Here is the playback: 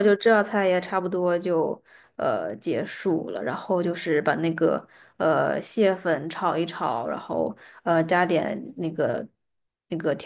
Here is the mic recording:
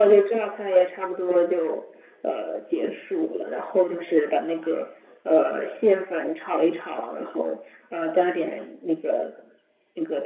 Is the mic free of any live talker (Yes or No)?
Yes